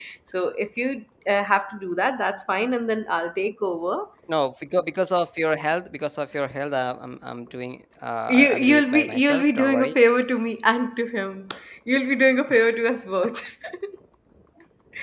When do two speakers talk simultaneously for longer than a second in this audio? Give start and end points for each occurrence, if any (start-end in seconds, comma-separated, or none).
8.4-9.9